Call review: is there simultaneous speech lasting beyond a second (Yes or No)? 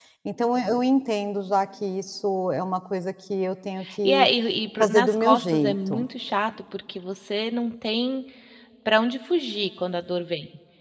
Yes